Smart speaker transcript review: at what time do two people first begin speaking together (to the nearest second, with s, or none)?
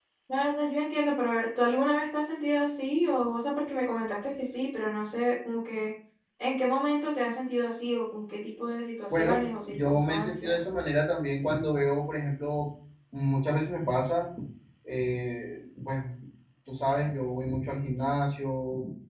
9 s